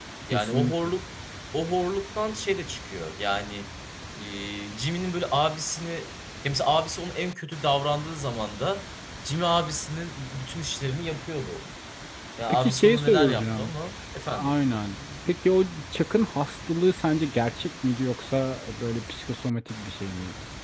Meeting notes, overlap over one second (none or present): present